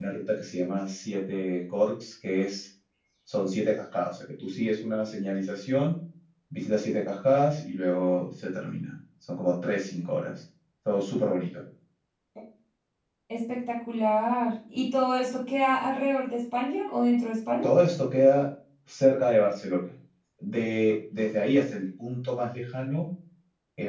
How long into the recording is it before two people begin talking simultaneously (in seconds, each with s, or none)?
none